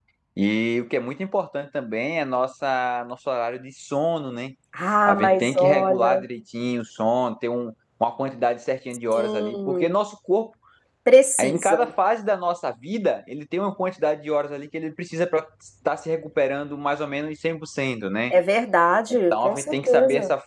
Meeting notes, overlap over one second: present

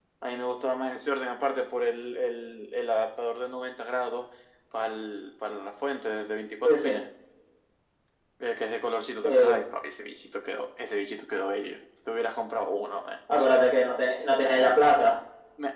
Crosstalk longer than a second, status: none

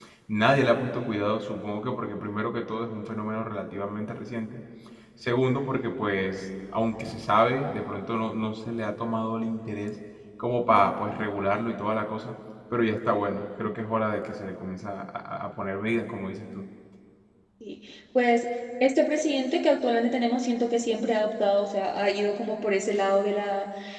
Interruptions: none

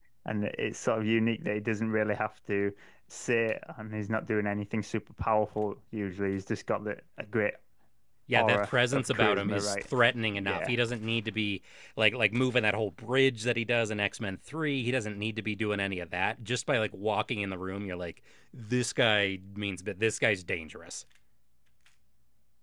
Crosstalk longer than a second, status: present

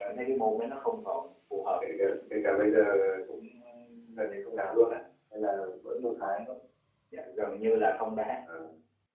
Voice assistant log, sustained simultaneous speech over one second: none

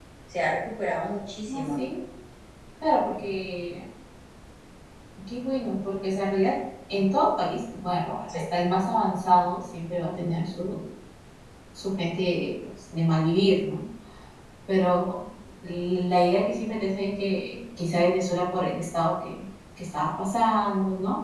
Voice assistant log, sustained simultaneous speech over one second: none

